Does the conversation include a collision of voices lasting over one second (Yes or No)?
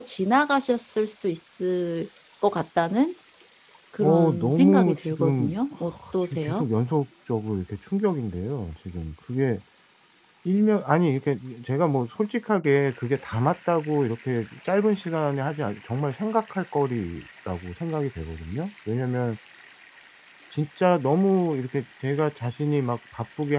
Yes